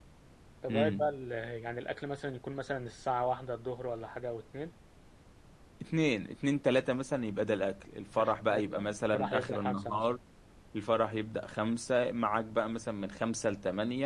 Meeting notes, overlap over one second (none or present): present